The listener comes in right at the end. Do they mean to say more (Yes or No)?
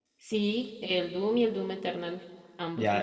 Yes